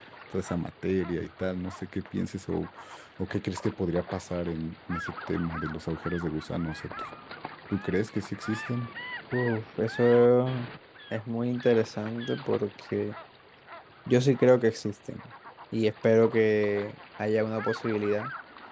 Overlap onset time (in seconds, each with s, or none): none